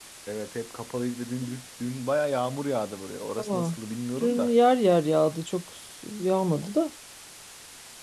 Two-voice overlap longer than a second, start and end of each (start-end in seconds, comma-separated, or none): none